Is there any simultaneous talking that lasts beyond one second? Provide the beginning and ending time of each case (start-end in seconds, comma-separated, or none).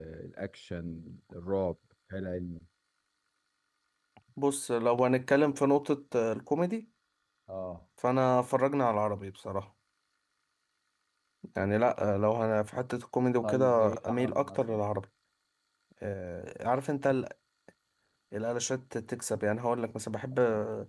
13.4-14.8